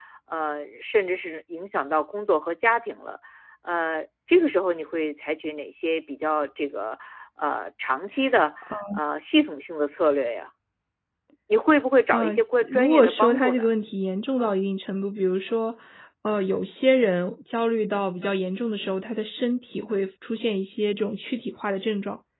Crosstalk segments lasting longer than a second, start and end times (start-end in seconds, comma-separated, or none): 12.1-13.6